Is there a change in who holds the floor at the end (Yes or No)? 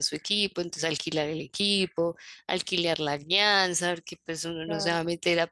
No